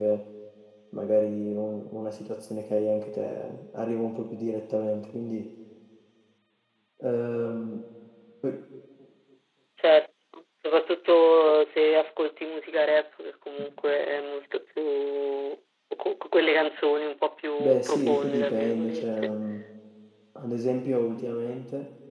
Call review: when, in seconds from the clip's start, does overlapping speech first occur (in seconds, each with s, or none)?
17.6 s